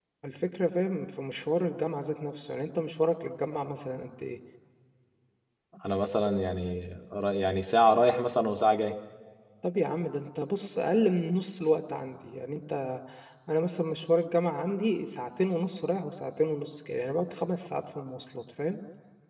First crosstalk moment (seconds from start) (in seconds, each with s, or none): none